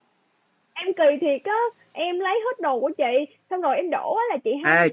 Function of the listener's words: taking over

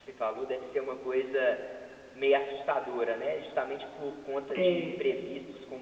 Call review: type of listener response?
listening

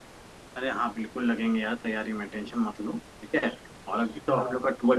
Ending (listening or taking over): listening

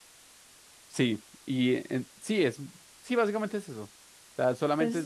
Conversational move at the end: taking over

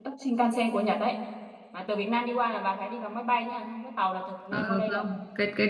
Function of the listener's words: taking over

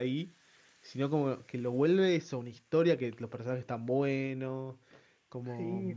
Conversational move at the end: taking over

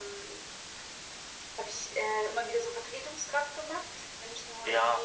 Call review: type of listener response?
taking over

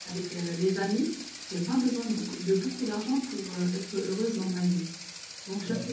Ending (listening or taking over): listening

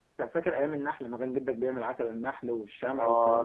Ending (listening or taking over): taking over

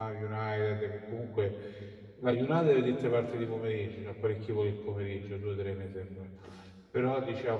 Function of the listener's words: listening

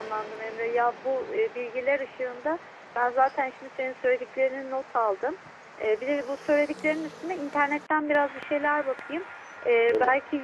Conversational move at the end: listening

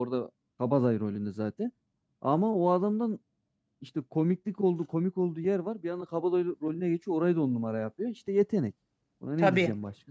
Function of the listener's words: taking over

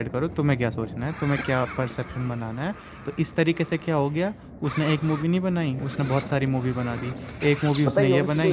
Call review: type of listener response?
taking over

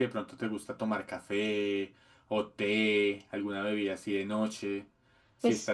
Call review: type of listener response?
taking over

